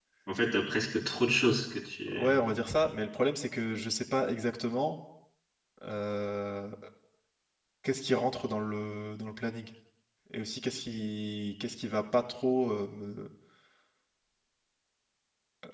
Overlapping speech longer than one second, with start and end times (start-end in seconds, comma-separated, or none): none